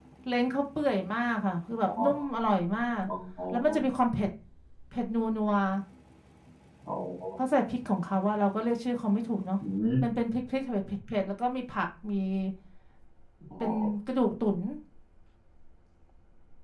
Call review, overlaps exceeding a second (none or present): none